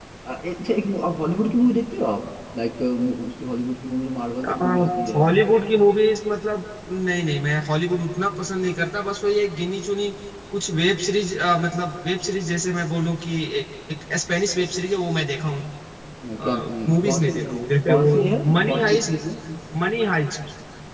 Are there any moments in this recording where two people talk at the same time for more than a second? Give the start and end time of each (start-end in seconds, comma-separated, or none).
16.4-19.1